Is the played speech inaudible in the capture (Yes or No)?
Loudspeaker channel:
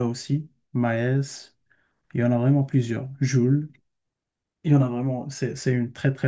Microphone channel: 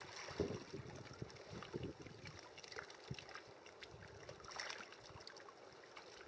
Yes